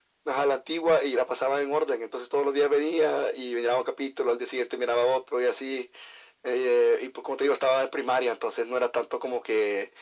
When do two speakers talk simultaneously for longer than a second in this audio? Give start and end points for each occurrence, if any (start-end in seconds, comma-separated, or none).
none